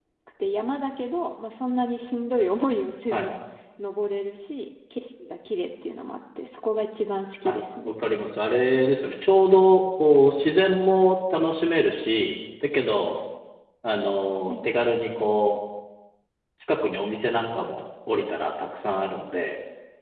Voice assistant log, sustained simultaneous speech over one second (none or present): none